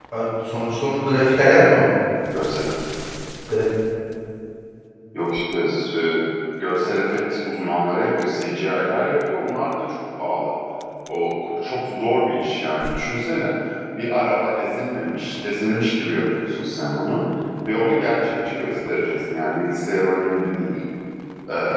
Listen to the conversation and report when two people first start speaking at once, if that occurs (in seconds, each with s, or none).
none